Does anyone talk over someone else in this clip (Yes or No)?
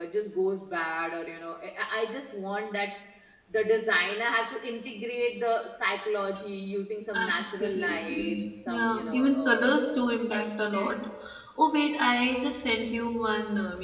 Yes